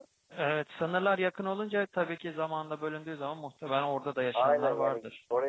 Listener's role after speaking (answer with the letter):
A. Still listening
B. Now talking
B